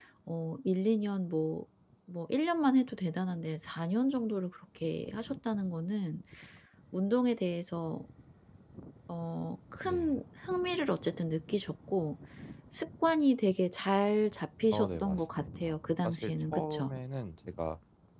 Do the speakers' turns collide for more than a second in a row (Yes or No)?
Yes